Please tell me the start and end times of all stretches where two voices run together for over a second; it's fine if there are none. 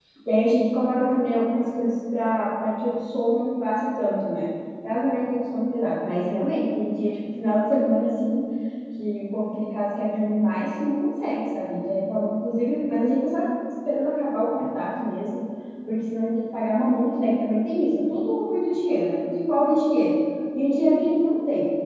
none

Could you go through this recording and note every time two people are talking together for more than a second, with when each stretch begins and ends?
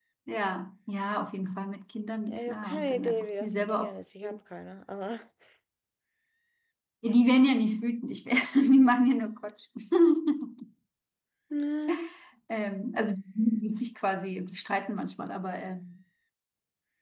2.3-3.9

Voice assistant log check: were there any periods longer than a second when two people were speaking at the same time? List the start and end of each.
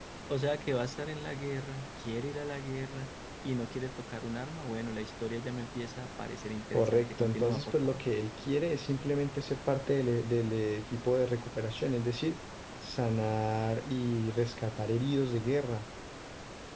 6.7-8.1

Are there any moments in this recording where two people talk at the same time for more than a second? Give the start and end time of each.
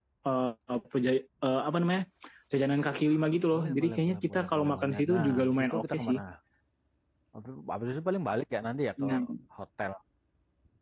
3.5-6.2

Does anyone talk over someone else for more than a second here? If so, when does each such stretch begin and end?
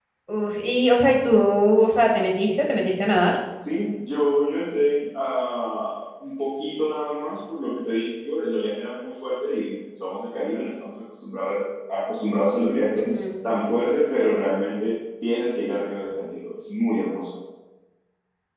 none

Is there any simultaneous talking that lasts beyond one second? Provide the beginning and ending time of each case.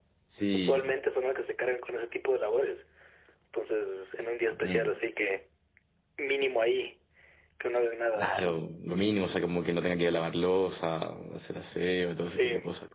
none

